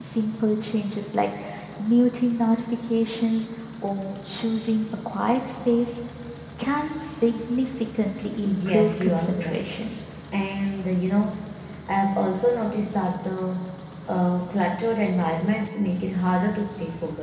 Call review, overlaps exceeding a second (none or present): present